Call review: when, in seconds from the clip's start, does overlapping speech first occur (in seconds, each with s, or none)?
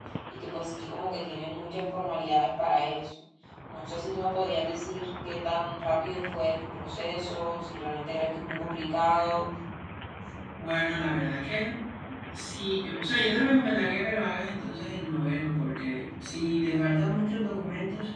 none